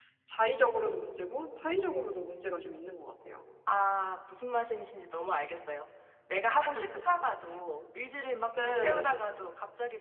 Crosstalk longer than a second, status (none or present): none